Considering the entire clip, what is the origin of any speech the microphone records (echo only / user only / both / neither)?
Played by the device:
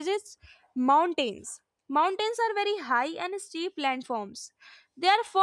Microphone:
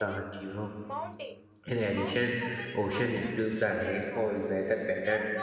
both